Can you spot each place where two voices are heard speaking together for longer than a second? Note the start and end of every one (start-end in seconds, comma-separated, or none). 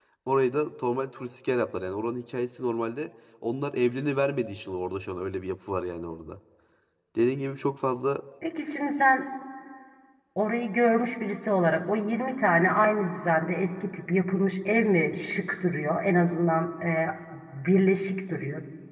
none